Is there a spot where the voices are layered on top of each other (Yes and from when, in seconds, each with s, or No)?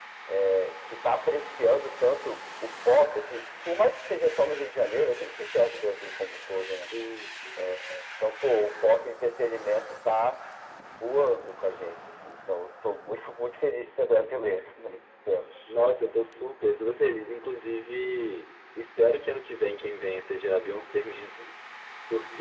No